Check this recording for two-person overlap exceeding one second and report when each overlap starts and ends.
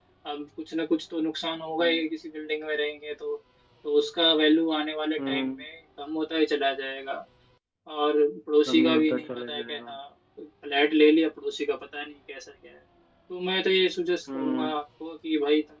8.7-9.9

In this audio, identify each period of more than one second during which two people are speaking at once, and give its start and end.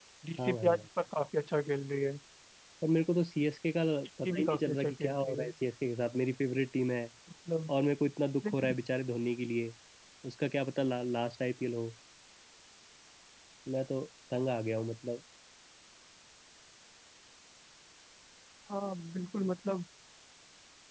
4.2-5.5

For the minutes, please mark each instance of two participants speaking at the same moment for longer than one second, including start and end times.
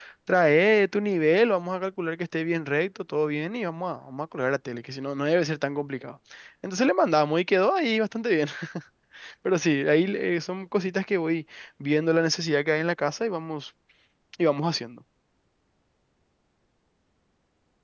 none

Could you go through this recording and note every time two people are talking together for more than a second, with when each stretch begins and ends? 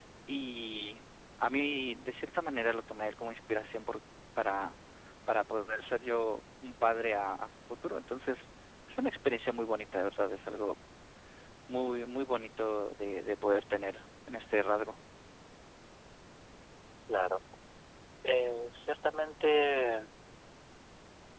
none

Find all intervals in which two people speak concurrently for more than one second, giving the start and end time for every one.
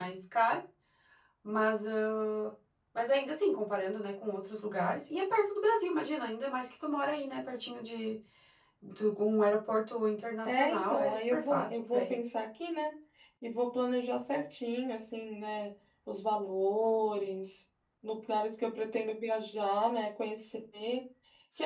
10.4-12.1

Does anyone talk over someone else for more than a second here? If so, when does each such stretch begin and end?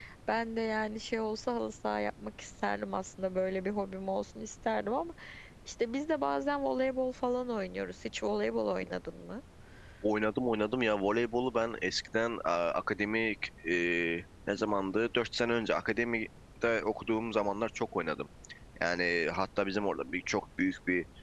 none

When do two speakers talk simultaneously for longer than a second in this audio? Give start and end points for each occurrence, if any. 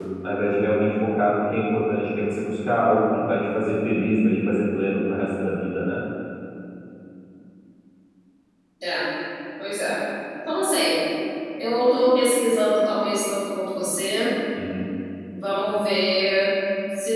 none

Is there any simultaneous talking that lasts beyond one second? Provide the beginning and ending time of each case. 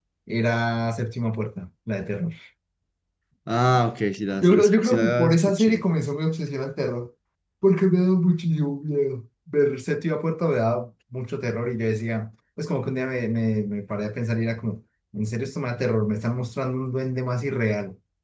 4.4-5.8

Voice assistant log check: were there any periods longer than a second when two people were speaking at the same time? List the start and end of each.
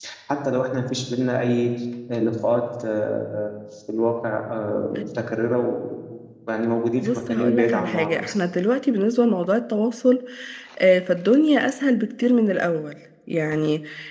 7.0-8.3

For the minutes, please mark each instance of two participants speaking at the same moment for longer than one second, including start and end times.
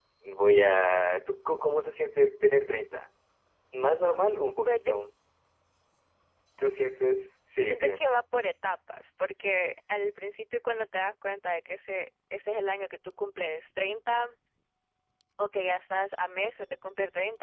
none

